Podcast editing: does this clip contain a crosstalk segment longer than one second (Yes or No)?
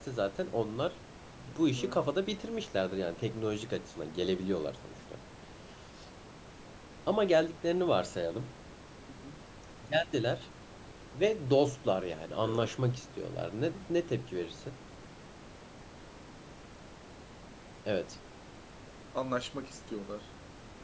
No